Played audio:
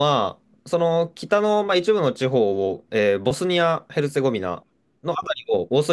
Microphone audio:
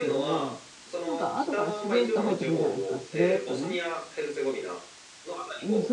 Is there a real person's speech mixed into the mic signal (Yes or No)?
Yes